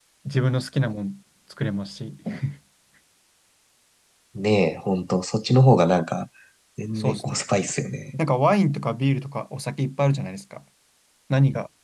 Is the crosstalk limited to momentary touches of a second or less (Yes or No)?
Yes